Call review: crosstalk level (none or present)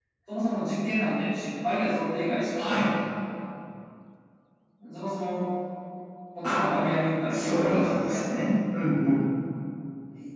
present